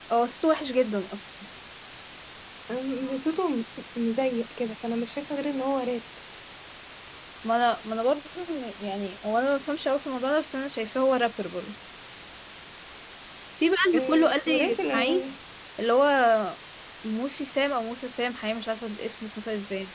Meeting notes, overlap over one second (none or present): present